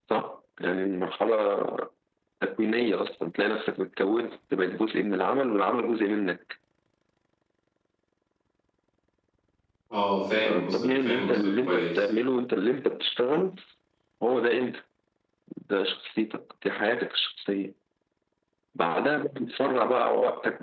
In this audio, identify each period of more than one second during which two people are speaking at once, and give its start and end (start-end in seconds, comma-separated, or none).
10.4-11.9